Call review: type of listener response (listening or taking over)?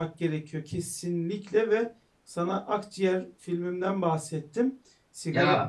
listening